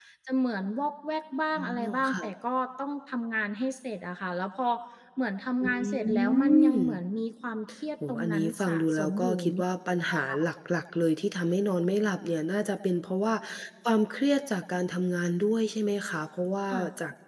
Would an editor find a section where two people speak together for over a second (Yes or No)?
Yes